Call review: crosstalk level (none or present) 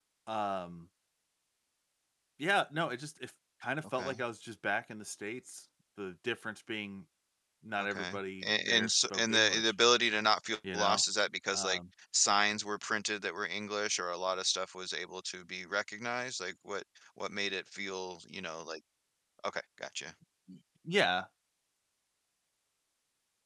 present